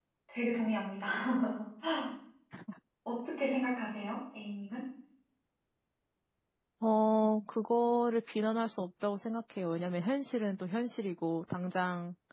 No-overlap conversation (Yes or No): Yes